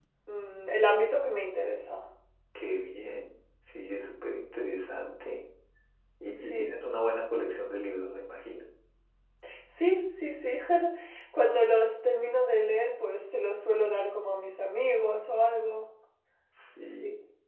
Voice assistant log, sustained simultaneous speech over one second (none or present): none